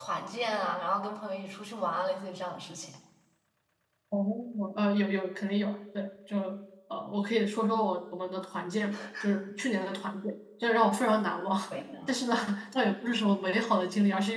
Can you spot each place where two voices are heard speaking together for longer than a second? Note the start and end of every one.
none

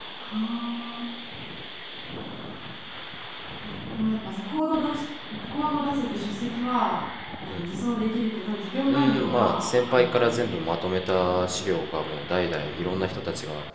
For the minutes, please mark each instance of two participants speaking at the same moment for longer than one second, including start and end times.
8.9-10.4

